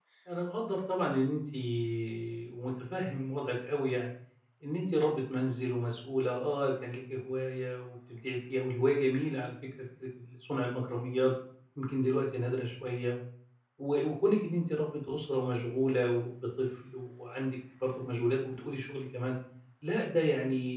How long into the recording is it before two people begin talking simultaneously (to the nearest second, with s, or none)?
none